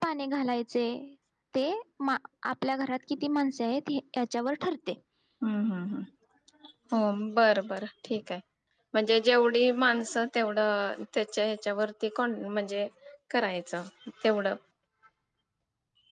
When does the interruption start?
none

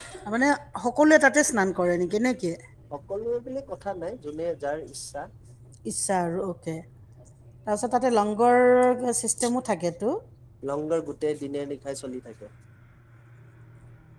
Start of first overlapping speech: none

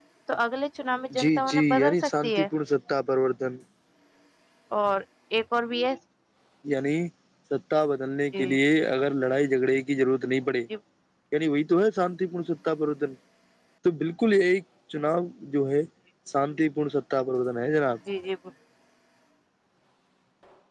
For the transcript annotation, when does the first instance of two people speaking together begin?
1.2 s

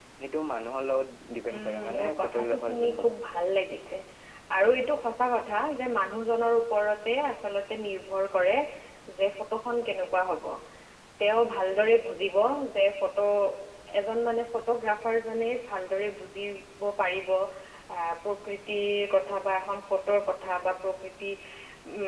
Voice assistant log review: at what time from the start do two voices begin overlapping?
1.5 s

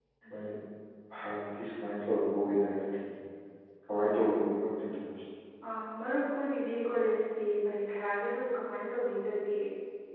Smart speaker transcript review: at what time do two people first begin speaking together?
none

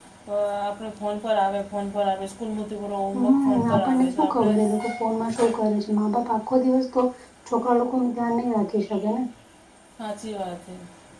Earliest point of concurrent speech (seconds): 3.1 s

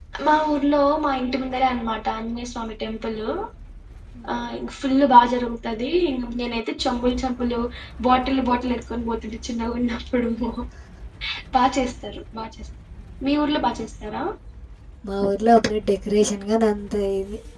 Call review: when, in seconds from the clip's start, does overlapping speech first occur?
none

